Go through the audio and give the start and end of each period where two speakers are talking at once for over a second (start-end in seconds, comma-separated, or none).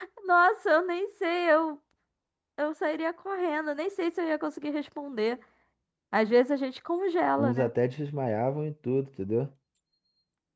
none